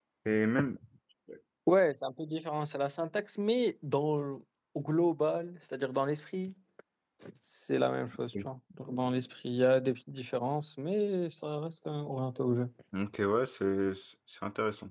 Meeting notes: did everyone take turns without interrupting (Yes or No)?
Yes